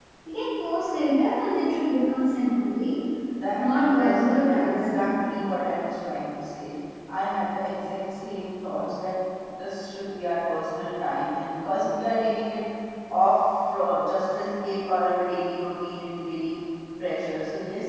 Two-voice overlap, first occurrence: 3.5 s

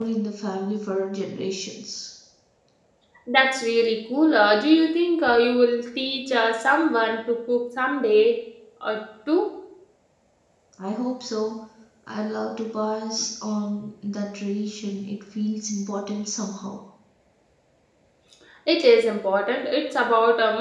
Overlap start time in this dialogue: none

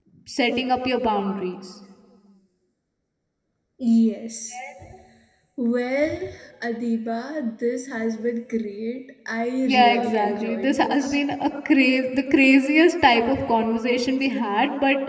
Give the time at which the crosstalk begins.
9.6 s

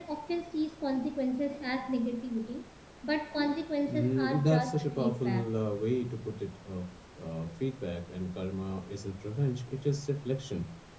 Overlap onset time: 3.9 s

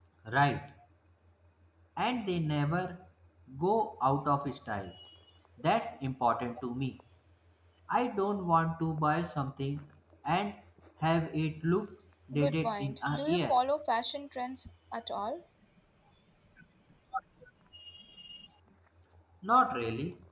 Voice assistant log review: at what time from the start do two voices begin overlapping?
12.3 s

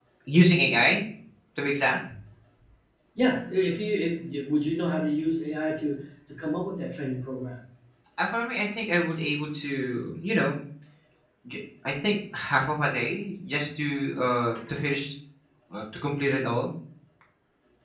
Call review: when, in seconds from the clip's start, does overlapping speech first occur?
none

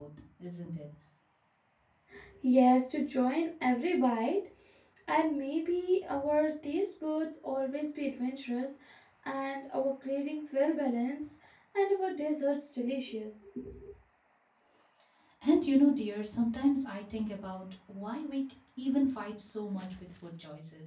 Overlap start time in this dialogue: none

